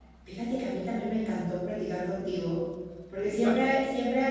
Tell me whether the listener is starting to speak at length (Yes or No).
No